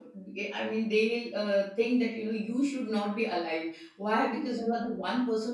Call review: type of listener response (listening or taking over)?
listening